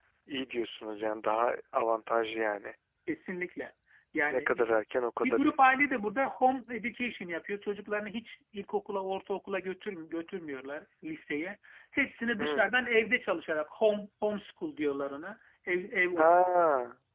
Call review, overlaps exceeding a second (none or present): none